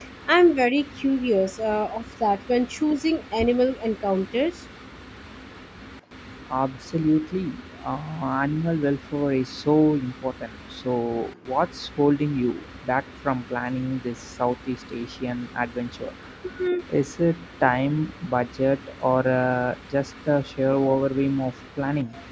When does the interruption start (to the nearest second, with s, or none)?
none